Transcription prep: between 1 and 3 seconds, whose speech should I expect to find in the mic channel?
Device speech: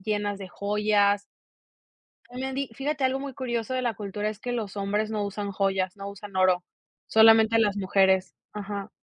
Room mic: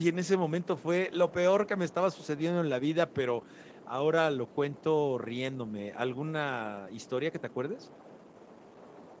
user only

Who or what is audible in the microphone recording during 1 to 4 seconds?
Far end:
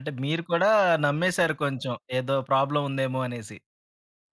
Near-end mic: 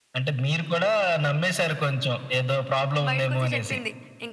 both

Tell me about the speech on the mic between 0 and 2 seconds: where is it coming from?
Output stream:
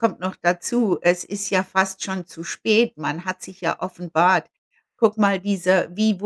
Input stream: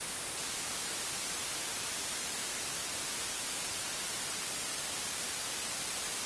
neither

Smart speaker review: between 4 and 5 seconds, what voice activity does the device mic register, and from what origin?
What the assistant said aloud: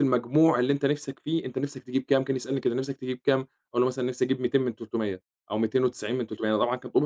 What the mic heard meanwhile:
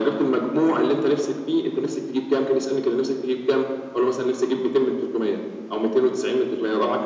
echo only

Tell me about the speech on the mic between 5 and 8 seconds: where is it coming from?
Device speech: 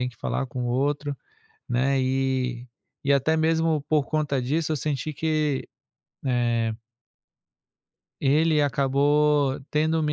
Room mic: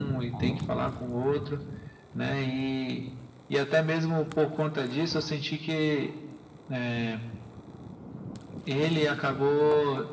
echo only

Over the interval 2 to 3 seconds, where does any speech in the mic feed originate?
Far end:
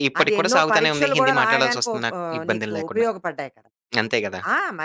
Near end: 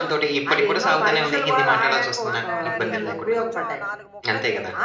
both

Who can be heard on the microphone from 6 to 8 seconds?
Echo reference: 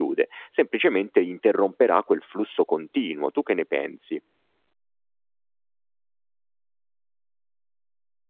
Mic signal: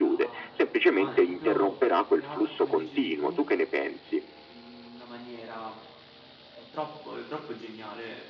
user only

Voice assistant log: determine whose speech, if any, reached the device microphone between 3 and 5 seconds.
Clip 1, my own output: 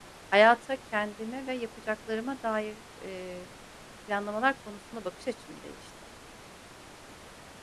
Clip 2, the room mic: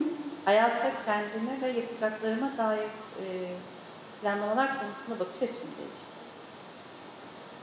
echo only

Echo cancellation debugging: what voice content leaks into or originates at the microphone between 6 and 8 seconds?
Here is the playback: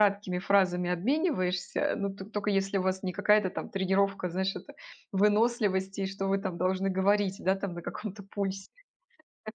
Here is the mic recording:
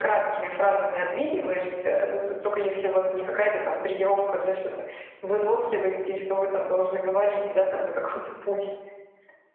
echo only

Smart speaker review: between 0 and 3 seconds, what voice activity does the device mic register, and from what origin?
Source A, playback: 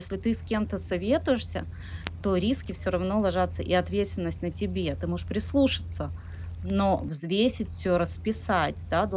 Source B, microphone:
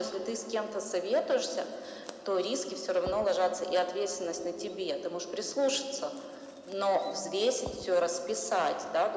echo only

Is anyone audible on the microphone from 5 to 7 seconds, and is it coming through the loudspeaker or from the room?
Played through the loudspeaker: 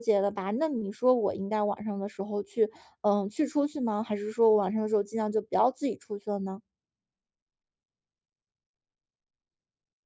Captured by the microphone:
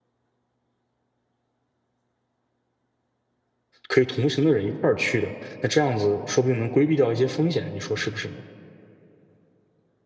user only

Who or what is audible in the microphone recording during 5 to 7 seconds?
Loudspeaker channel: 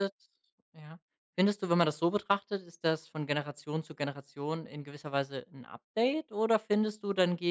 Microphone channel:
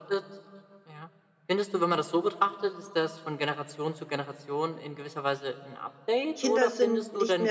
both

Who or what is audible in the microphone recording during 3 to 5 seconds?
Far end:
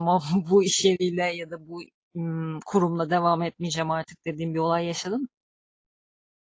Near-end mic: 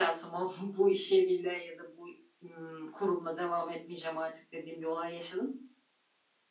echo only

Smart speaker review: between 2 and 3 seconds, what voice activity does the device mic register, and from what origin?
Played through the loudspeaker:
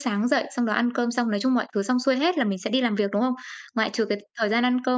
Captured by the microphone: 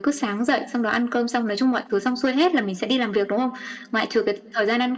echo only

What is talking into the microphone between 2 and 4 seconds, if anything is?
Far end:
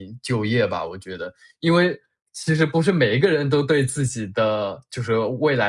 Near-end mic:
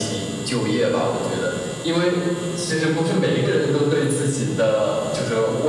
echo only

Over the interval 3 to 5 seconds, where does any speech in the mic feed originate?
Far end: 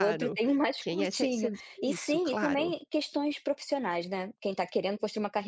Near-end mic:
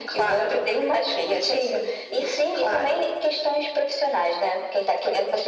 echo only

